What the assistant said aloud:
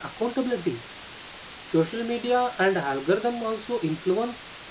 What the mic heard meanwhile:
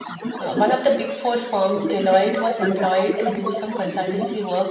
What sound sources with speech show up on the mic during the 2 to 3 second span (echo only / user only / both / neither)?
both